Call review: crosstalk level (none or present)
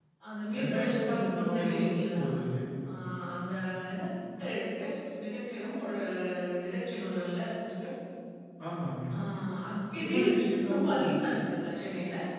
present